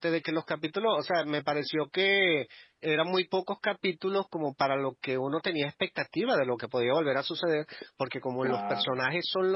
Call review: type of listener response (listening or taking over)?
listening